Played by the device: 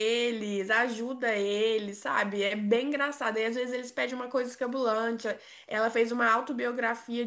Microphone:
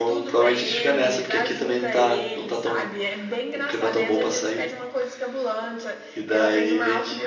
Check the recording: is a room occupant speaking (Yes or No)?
Yes